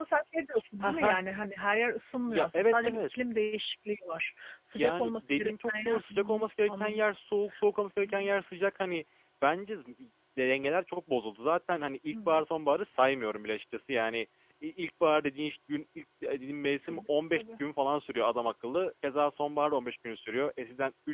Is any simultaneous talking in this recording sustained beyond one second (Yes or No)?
Yes